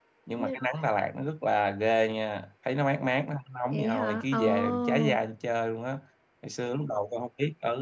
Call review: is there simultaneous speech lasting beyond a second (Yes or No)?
Yes